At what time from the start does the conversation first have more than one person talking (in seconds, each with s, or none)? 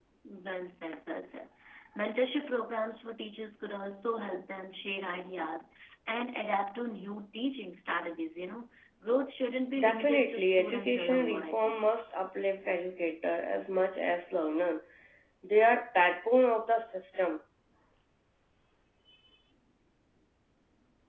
9.8 s